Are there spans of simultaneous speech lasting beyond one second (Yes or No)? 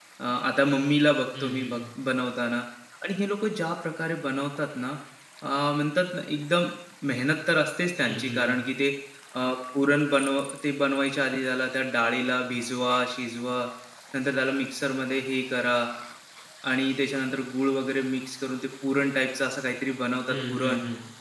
No